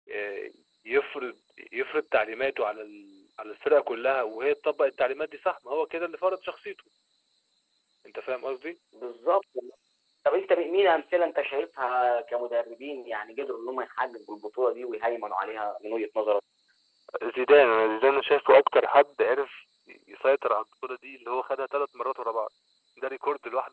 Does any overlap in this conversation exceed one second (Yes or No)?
No